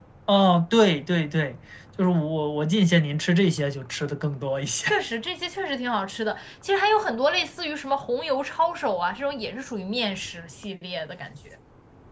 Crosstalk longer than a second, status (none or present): none